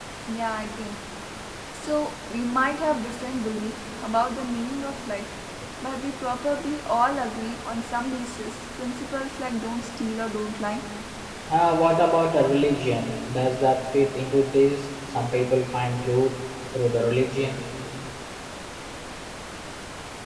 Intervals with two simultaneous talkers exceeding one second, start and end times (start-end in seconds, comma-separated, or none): none